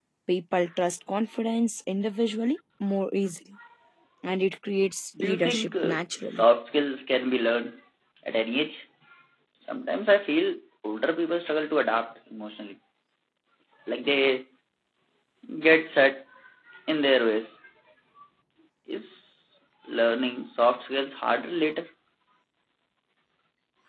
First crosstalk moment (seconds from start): 5.1 s

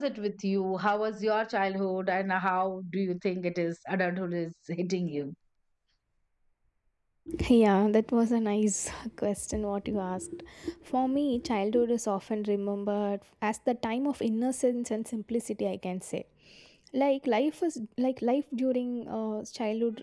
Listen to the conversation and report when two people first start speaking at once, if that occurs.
none

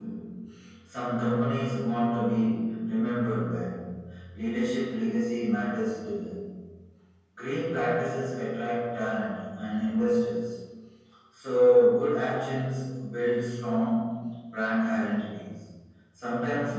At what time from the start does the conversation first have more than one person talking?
none

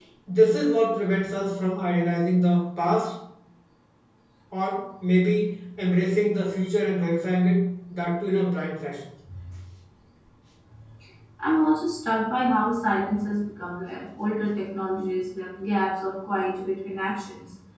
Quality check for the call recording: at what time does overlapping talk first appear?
none

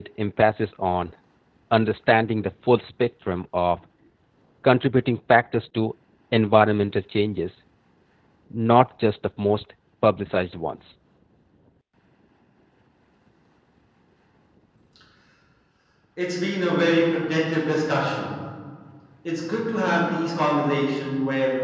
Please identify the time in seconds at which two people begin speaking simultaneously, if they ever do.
none

